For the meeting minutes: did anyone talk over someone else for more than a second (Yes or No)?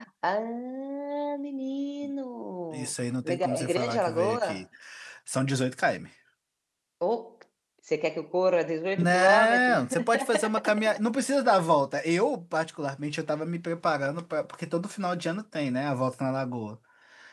Yes